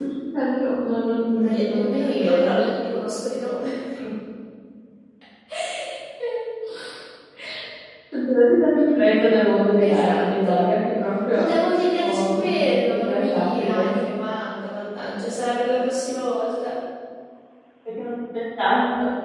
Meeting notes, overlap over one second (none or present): present